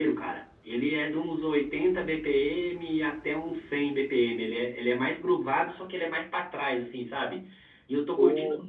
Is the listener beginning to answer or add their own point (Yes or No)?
No